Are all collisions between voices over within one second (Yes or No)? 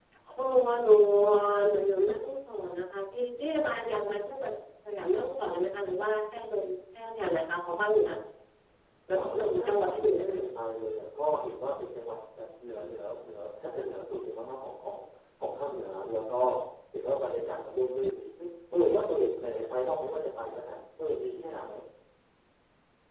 No